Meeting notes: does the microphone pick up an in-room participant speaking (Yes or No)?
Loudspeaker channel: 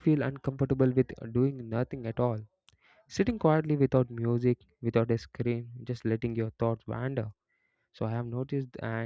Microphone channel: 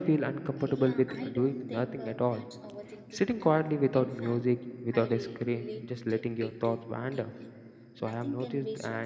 Yes